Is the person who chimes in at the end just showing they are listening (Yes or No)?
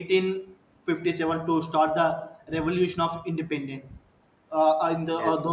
Yes